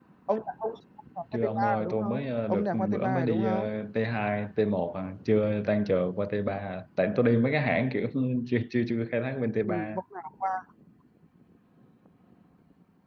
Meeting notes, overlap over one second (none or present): present